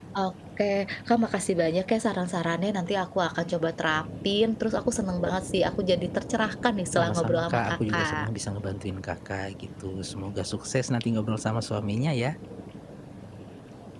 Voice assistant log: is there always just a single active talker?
No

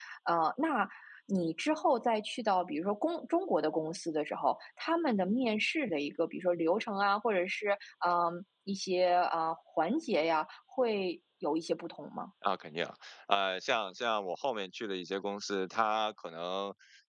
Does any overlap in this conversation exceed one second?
No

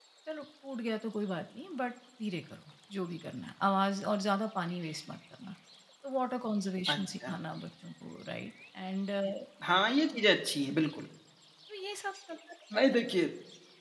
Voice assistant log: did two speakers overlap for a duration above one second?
No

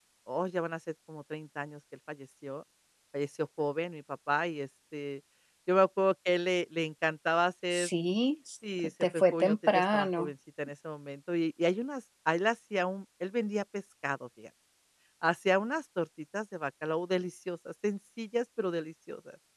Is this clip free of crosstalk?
No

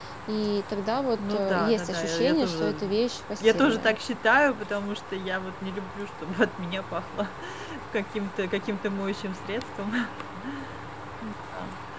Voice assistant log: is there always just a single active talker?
No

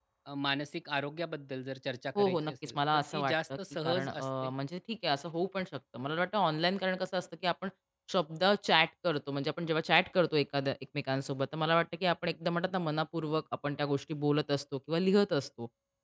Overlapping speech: Yes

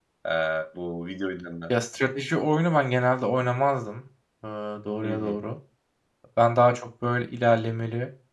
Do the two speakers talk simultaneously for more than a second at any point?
No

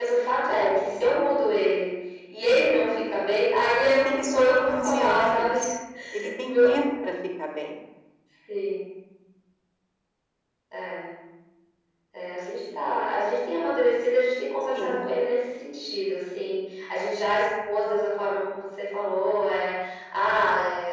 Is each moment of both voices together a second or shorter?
No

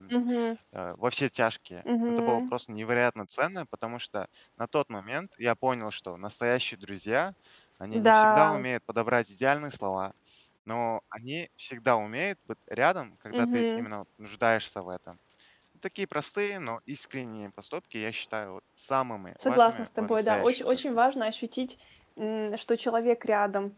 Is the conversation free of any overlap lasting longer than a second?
No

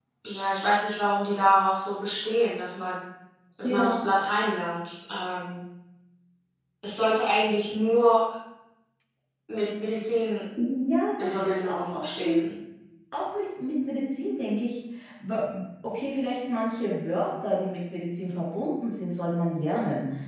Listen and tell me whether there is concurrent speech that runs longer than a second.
Yes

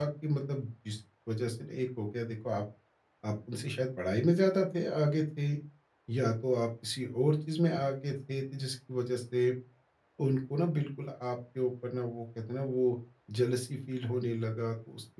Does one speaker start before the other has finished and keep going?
No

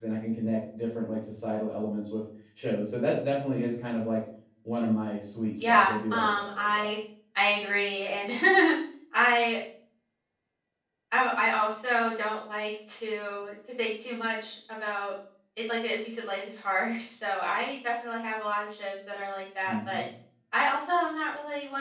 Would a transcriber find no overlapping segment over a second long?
No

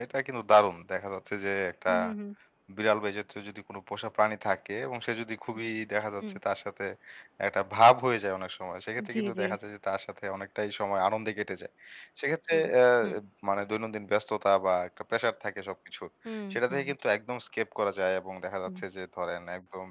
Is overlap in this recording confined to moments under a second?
Yes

